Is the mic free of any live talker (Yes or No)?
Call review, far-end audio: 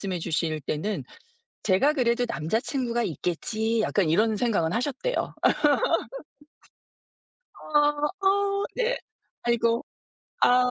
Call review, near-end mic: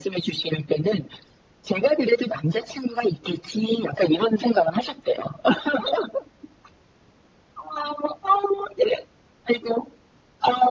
Yes